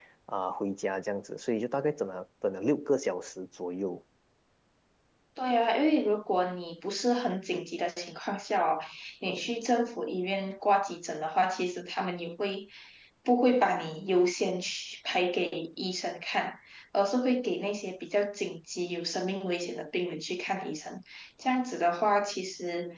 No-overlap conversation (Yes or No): Yes